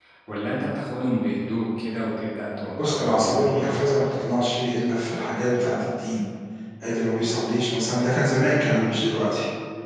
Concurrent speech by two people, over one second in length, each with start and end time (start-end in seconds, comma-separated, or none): 2.8-4.2